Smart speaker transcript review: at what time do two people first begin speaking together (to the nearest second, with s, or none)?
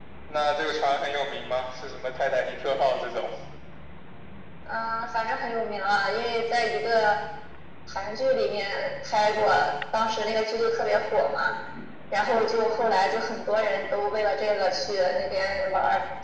none